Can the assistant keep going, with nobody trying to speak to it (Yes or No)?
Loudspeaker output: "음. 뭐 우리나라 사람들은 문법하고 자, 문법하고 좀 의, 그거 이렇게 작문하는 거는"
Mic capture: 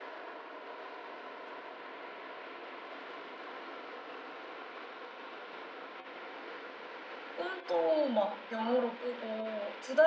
No